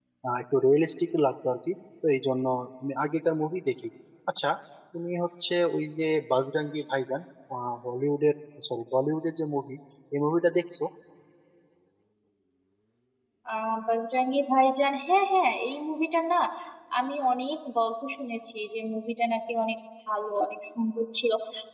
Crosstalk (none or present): none